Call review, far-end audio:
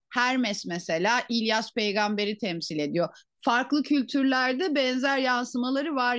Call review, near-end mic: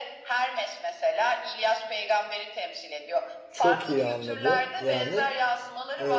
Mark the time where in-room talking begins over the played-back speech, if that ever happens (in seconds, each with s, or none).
3.5 s